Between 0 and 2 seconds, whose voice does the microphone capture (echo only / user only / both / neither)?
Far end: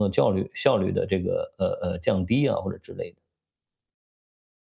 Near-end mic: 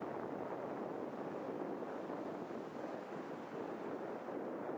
neither